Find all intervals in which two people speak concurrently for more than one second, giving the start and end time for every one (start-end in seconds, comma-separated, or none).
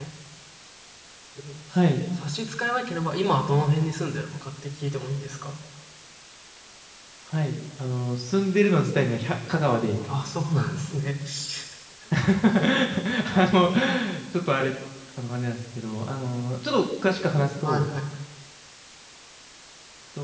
none